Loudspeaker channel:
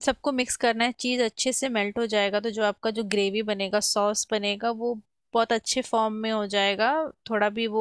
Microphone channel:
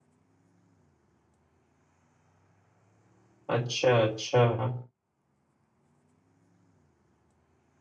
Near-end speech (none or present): present